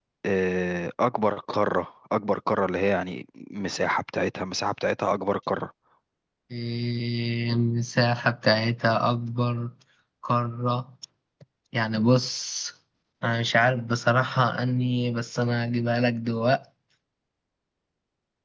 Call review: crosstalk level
none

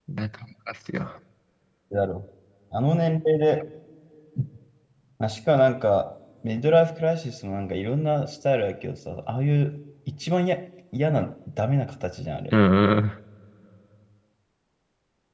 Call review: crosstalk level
none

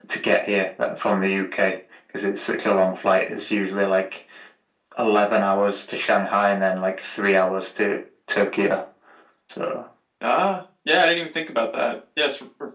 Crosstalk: none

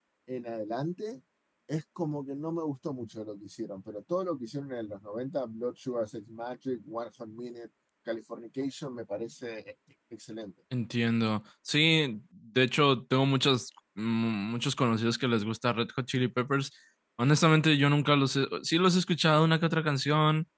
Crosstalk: none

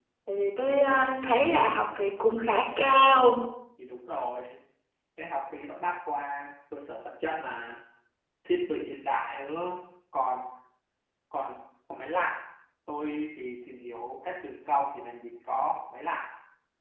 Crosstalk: none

